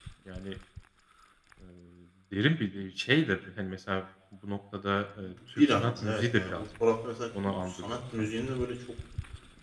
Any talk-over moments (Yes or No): Yes